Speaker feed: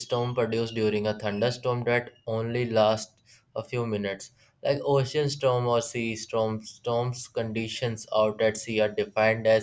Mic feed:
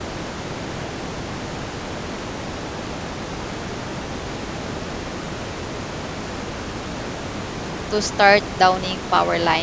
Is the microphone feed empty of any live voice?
No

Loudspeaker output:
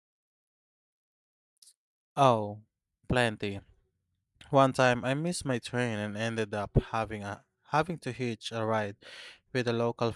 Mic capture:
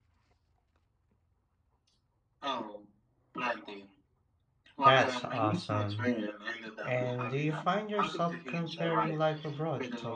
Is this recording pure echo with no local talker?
No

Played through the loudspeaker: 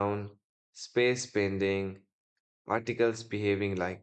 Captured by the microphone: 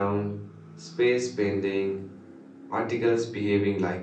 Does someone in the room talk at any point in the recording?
No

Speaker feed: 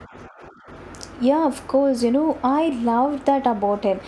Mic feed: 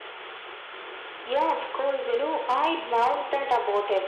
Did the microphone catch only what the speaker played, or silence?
Yes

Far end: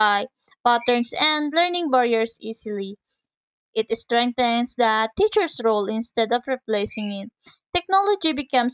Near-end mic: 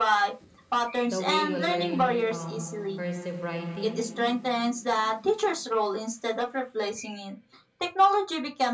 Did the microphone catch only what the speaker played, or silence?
No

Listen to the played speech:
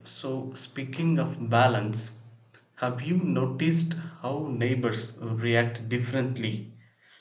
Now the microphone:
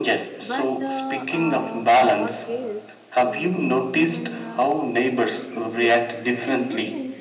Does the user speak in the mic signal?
Yes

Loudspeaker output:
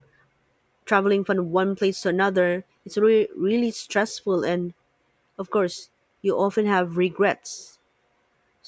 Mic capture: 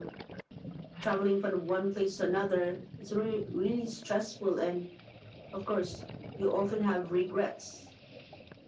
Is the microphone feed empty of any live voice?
Yes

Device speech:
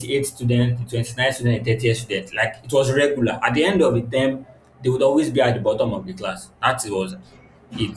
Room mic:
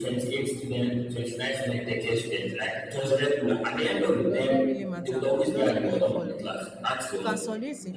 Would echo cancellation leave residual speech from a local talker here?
Yes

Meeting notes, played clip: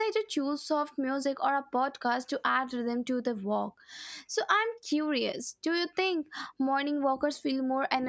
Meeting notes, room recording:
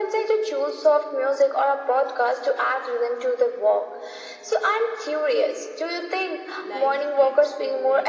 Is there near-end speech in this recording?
Yes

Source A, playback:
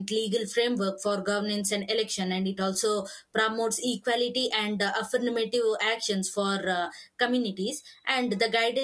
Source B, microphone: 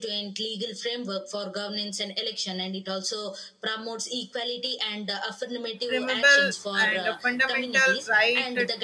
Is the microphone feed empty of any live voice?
No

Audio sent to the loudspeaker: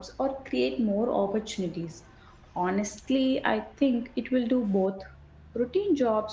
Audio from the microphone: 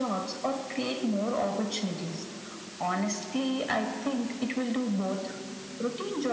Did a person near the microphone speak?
No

